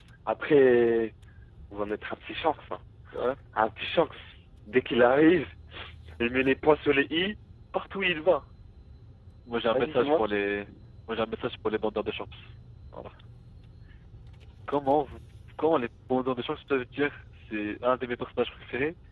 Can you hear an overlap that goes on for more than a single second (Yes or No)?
No